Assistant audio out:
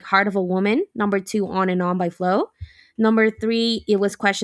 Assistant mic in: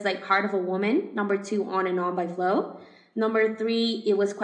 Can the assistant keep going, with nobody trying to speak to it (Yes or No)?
Yes